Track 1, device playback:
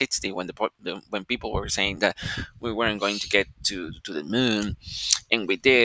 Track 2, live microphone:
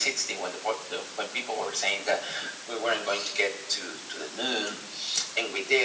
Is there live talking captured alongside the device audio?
No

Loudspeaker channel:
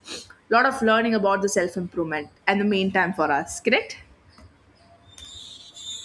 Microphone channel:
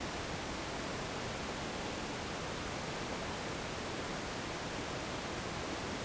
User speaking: No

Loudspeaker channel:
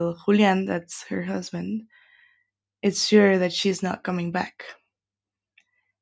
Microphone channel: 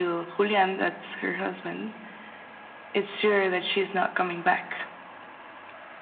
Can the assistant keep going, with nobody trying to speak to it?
Yes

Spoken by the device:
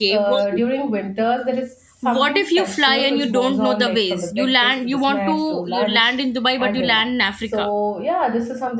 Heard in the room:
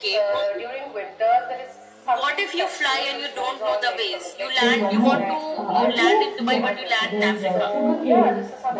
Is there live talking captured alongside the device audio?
Yes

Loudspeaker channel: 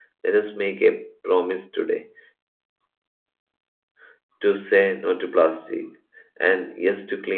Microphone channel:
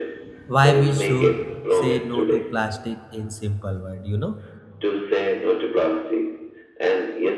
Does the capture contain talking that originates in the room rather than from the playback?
Yes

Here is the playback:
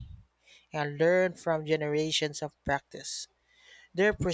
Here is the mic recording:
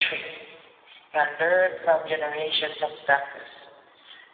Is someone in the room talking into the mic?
No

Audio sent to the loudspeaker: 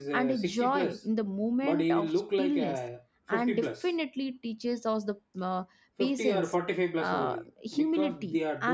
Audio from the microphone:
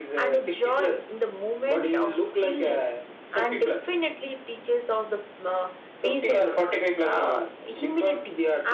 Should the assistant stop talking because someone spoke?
No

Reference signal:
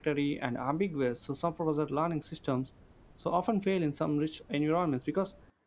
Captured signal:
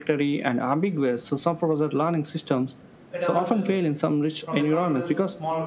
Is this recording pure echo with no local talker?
No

